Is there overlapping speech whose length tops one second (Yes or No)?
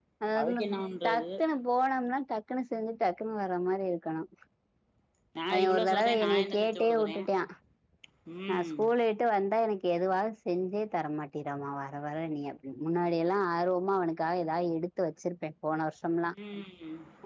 Yes